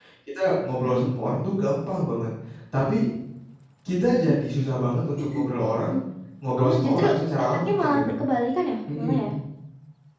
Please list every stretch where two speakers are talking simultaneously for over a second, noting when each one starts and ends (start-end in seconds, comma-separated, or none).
6.6-8.1